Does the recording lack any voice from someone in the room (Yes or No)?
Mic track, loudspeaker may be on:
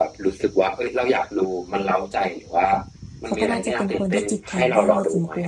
No